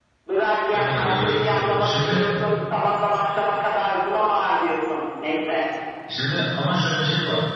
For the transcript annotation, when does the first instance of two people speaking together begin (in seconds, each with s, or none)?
0.7 s